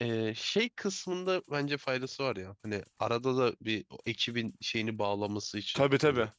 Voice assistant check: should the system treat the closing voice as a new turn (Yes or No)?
Yes